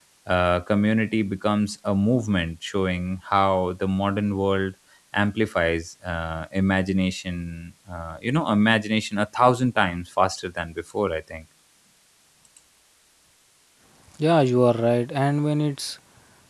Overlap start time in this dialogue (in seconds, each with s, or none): none